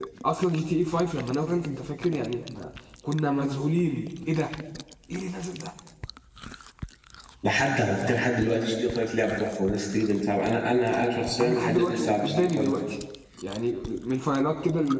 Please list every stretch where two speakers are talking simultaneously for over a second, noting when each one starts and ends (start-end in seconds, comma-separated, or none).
11.4-12.7